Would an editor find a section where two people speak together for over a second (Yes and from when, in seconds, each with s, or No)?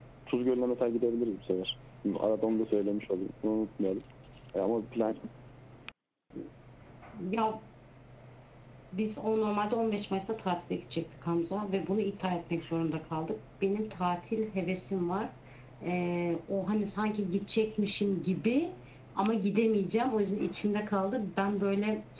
No